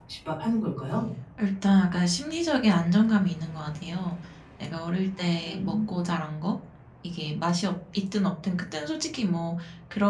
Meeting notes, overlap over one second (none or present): none